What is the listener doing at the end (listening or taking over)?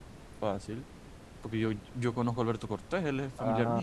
taking over